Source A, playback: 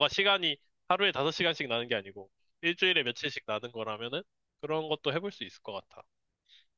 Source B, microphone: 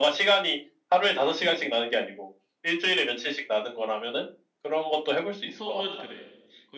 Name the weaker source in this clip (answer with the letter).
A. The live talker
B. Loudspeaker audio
A